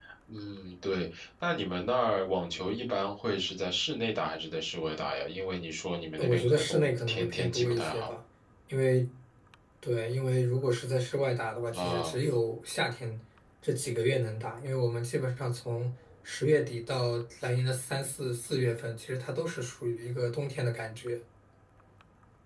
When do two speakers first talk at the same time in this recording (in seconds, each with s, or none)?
6.2 s